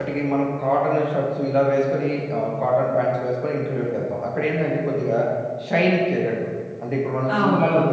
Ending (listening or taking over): taking over